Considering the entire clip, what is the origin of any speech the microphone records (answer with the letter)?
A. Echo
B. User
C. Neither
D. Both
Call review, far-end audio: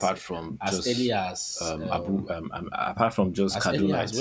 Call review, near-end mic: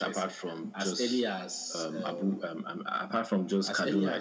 A